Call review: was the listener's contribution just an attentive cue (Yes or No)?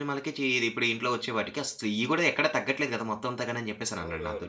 No